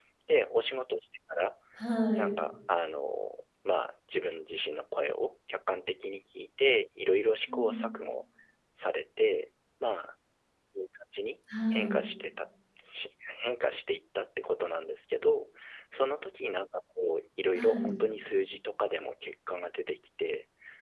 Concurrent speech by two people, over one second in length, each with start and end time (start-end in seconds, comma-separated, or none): none